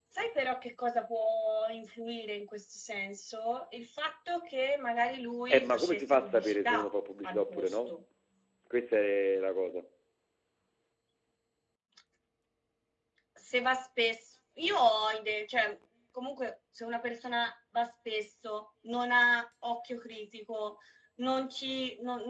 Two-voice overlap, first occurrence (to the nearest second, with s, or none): 6 s